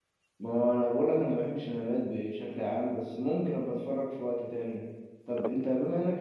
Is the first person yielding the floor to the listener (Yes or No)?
No